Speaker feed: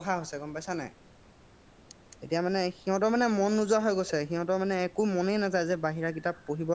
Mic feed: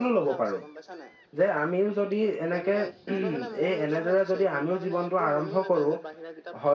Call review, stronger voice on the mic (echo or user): user